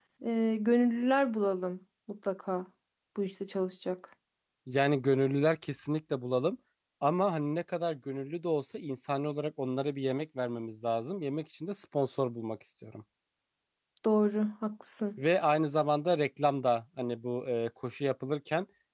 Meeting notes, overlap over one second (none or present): none